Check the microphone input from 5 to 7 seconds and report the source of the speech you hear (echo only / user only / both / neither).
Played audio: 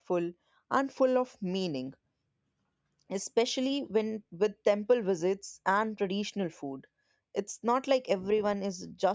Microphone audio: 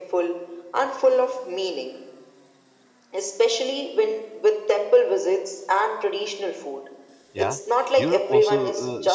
echo only